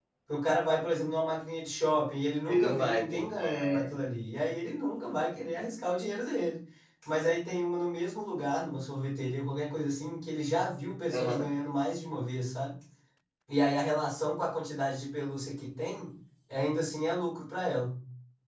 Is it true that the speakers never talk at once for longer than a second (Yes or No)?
No